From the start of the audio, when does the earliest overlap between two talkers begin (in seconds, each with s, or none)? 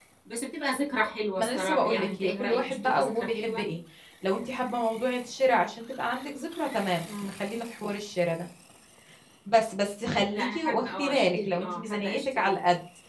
1.4 s